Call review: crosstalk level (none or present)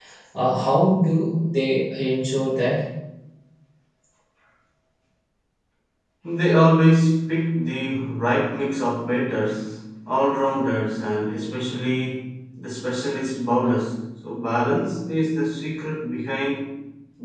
none